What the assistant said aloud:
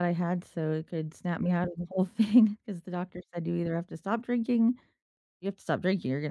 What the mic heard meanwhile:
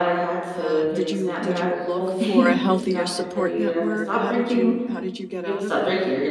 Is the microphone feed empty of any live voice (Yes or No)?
No